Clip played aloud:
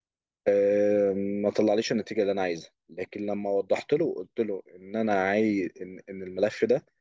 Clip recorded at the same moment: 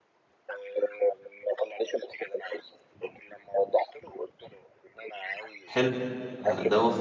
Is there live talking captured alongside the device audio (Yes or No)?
Yes